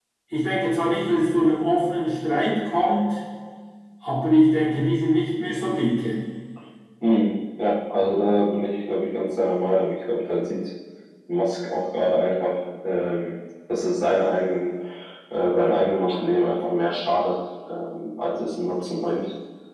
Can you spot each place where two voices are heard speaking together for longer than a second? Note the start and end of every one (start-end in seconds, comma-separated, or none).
none